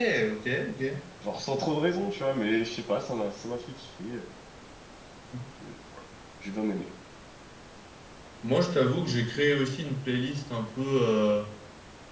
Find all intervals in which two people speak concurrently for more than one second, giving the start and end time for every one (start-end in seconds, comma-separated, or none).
none